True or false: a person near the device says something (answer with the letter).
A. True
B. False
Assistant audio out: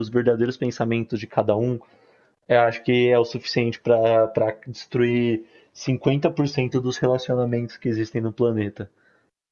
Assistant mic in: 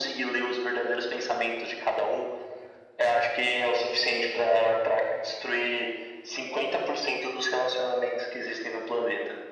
B